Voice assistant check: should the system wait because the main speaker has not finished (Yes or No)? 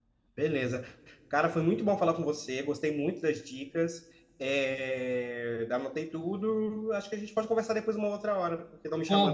No